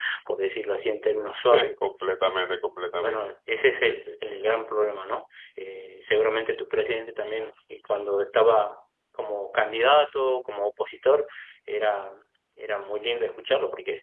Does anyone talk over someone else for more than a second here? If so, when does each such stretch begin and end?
none

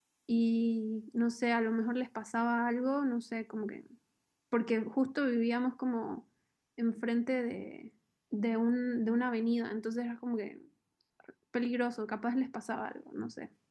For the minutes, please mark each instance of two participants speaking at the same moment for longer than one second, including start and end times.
none

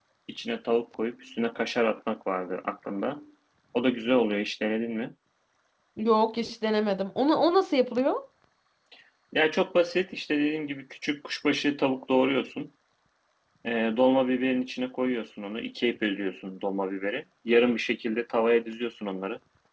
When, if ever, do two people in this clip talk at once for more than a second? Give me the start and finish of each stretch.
none

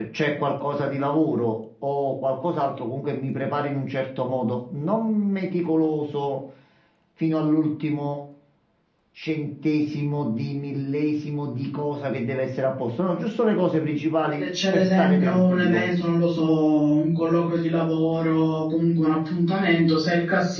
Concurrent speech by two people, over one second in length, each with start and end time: 14.3-15.8

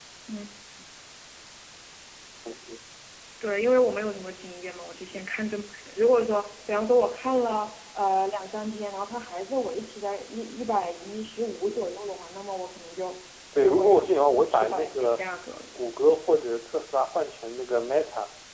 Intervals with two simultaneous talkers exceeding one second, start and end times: 13.6-15.2

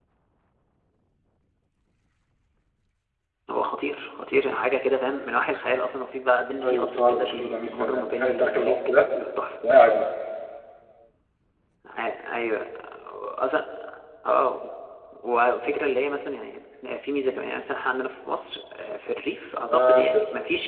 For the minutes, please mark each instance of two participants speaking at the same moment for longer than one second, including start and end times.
6.6-9.1

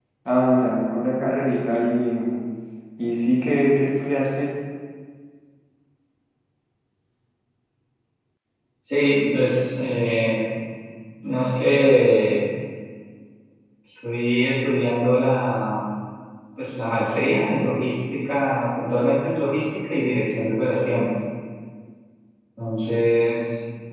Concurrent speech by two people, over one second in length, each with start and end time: none

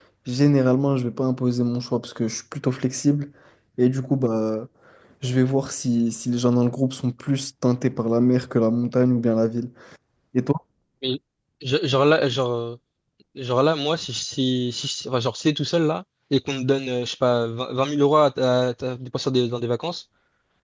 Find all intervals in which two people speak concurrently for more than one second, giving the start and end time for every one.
none

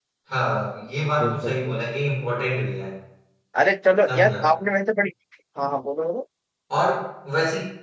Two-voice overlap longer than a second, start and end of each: none

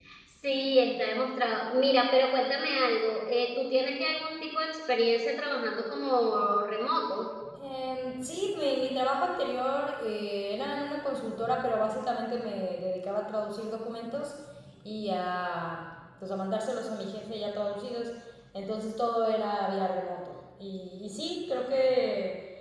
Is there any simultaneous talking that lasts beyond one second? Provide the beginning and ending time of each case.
none

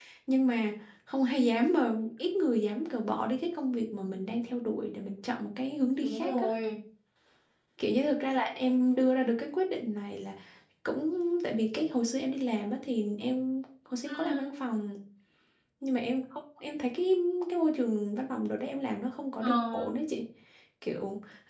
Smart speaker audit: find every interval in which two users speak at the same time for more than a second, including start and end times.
none

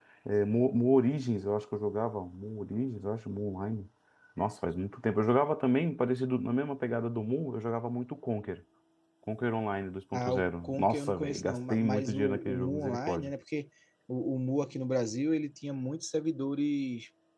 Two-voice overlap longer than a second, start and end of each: 10.1-13.3

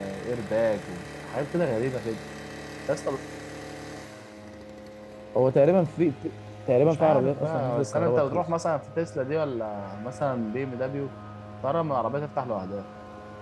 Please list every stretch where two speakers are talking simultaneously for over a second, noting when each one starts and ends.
6.8-8.4

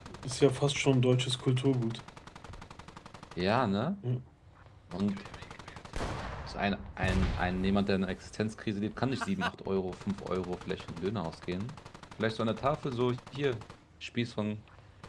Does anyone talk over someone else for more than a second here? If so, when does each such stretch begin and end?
none

